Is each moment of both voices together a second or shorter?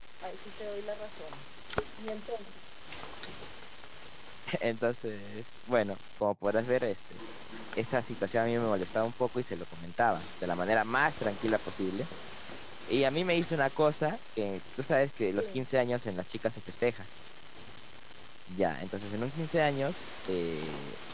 Yes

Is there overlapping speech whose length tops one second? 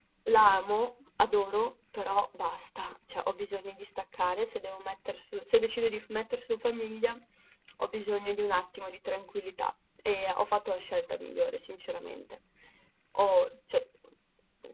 No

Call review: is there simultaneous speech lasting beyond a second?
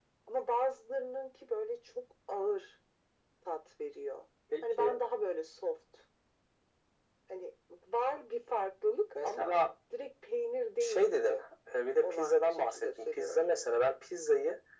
Yes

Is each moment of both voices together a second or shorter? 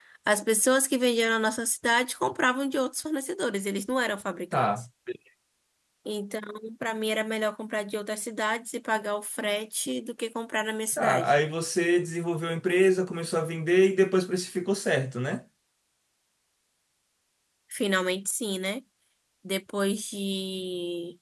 Yes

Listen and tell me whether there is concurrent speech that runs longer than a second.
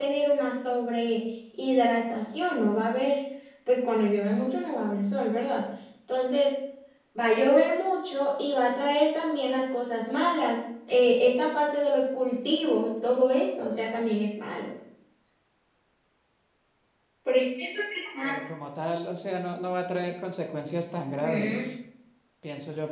No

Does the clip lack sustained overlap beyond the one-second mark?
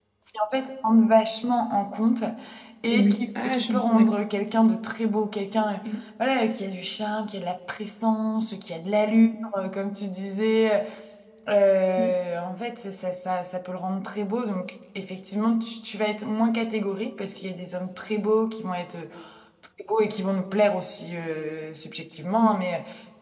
No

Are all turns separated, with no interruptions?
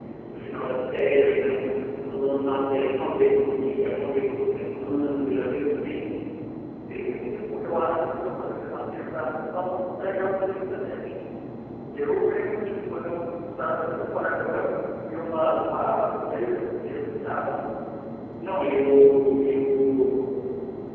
Yes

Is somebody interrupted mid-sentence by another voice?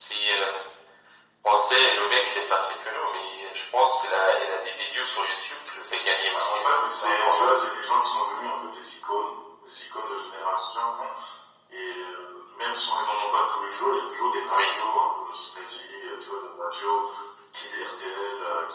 Yes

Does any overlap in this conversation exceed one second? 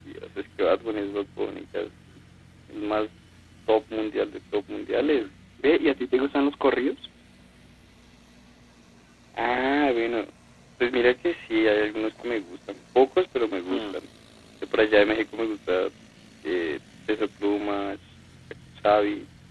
No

